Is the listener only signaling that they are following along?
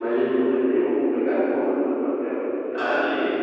No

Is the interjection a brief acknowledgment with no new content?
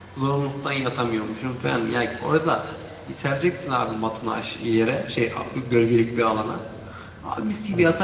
Yes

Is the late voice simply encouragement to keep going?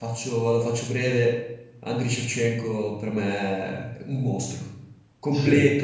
Yes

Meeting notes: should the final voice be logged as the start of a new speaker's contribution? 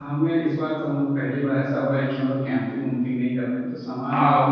Yes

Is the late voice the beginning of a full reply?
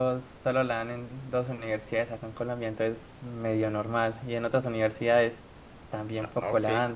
Yes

